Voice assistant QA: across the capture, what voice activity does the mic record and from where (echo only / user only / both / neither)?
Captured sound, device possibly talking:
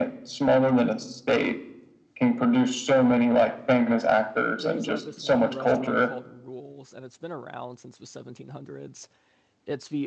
both